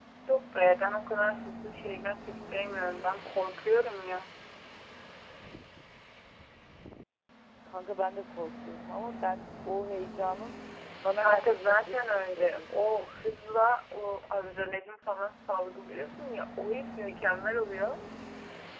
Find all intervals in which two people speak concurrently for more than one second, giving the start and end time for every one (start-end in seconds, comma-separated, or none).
11.2-12.7